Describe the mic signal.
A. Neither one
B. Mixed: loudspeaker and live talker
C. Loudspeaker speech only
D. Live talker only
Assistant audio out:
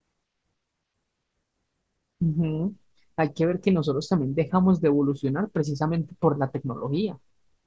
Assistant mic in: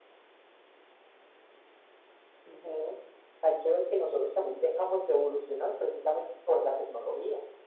C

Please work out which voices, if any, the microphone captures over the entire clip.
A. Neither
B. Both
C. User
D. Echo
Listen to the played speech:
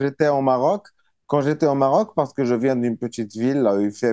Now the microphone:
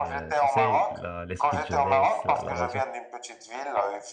B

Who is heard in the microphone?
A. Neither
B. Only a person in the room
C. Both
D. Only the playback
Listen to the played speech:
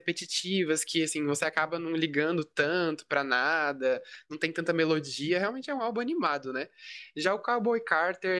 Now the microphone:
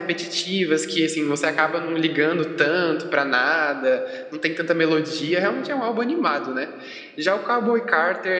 D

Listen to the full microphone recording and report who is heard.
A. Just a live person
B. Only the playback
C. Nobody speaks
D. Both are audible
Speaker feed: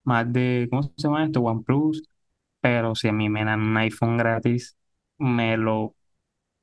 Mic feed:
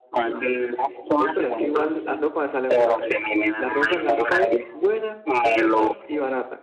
D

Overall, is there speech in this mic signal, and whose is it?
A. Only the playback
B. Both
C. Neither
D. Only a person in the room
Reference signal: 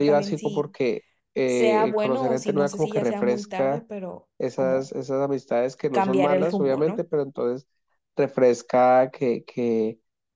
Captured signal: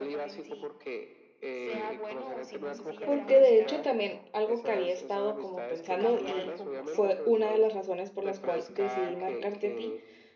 B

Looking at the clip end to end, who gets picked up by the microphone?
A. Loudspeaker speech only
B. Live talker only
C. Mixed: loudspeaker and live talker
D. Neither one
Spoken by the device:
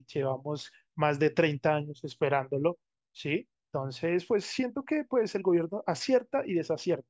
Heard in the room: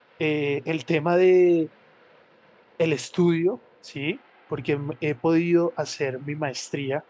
B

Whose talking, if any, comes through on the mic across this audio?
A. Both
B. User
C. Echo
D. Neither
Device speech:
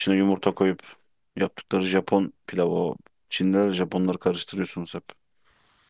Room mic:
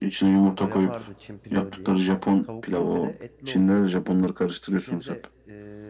A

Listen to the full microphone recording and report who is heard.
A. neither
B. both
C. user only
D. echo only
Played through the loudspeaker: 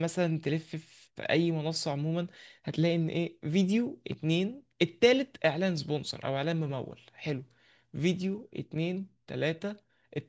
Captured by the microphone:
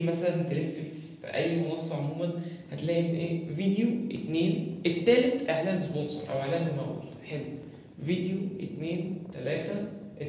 D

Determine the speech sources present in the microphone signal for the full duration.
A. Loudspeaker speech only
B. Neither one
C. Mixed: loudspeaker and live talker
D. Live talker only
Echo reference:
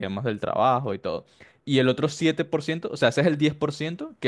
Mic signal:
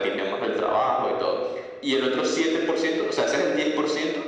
A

